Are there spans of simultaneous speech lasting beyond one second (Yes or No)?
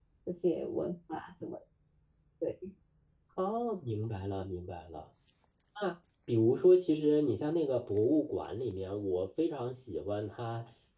No